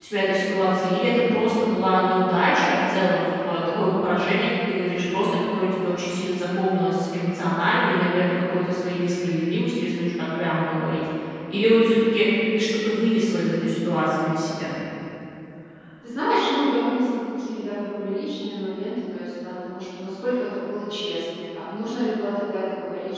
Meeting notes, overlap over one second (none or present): none